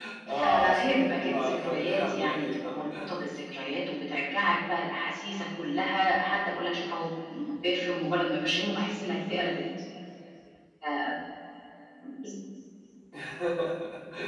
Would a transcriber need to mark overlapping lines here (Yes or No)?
Yes